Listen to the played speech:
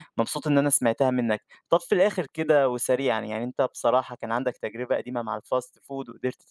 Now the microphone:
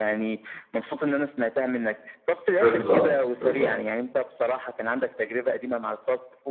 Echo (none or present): present